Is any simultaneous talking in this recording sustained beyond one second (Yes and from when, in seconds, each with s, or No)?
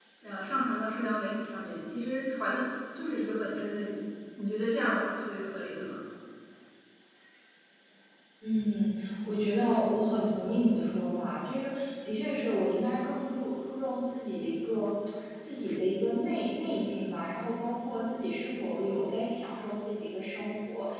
No